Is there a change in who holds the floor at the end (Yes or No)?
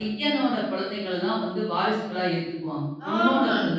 Yes